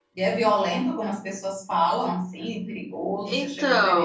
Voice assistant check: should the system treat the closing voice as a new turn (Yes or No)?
Yes